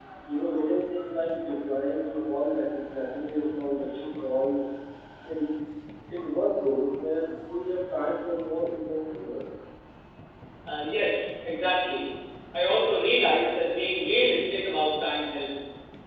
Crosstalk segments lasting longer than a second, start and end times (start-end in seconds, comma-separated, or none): none